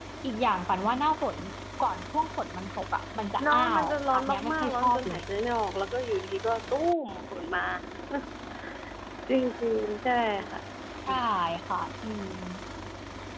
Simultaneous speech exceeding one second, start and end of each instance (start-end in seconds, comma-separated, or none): 3.4-5.2